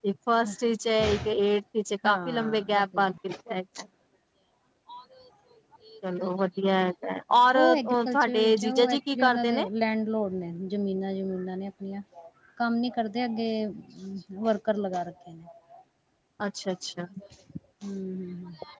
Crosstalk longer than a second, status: present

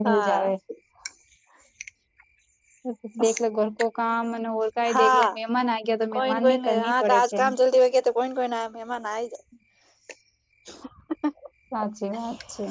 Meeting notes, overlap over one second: present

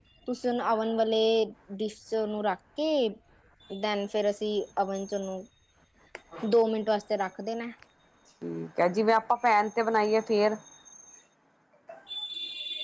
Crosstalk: none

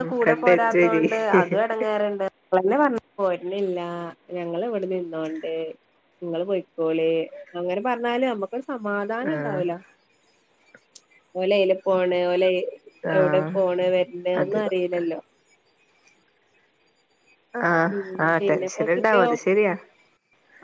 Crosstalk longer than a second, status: present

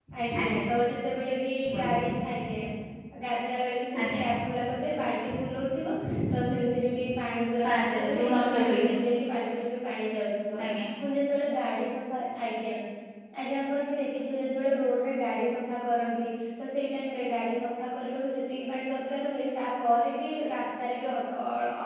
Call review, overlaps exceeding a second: present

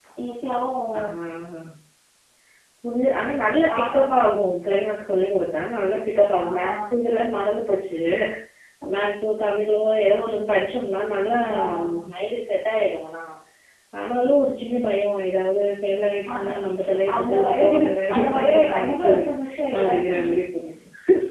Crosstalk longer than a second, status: present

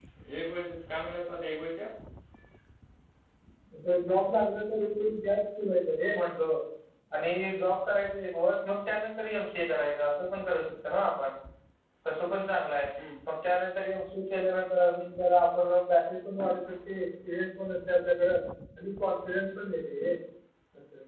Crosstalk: none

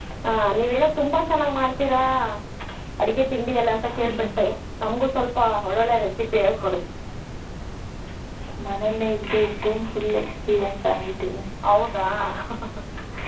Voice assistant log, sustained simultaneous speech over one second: none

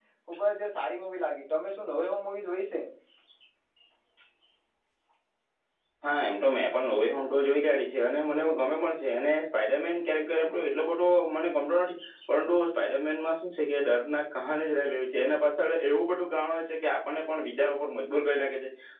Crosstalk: none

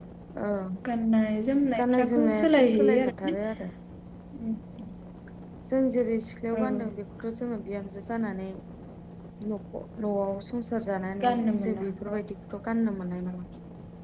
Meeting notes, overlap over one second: present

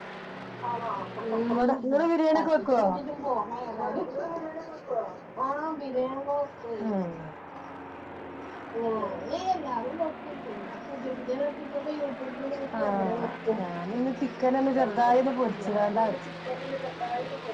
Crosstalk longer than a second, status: present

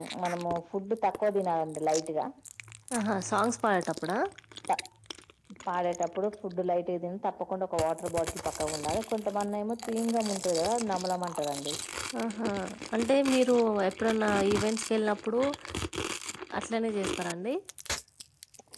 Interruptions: none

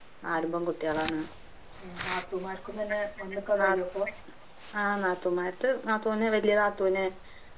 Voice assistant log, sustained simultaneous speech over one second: none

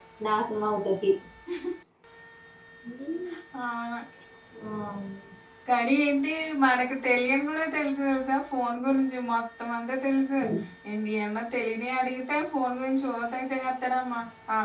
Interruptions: none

